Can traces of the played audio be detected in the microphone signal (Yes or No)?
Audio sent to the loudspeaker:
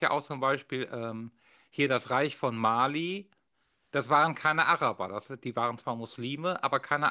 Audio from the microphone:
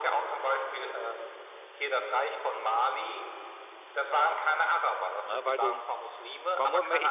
Yes